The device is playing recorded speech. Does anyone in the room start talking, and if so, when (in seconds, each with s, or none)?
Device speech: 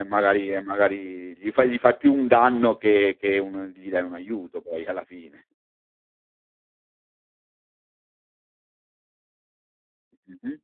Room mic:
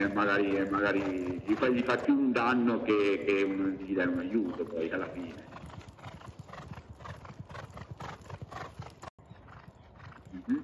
none